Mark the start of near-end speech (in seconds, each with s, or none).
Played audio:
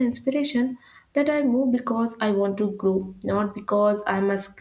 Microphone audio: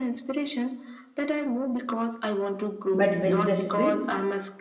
2.9 s